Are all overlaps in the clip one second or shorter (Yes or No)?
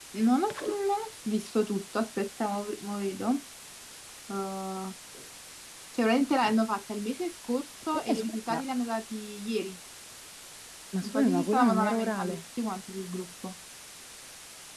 No